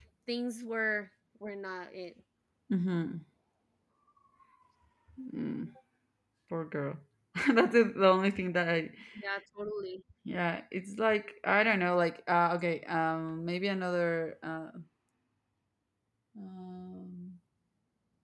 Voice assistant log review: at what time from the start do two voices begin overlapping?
none

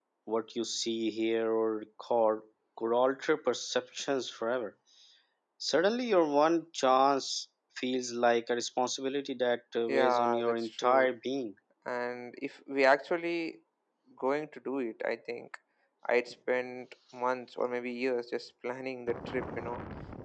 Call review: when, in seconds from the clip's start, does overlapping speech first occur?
9.9 s

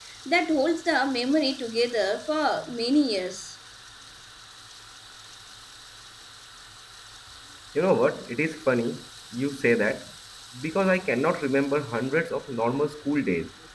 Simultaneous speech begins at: none

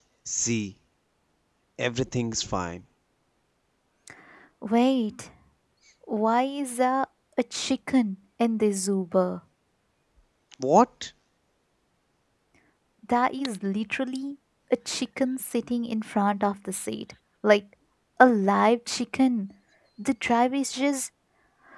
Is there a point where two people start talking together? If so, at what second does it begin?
none

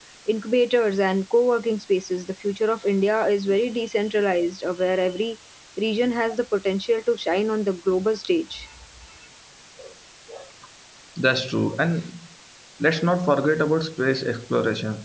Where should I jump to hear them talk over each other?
none

